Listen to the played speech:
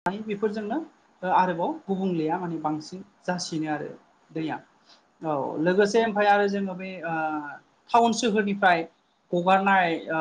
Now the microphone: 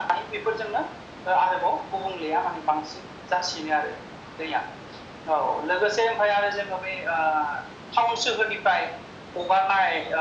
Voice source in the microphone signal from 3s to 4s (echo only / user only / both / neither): echo only